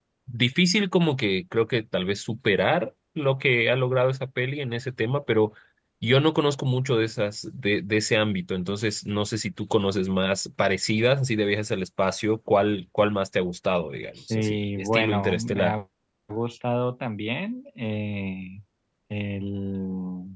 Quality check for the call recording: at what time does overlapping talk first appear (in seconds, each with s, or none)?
14.3 s